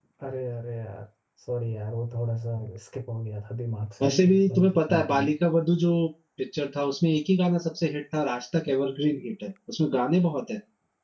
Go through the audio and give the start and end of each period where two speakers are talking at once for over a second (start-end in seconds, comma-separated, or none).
4.0-5.3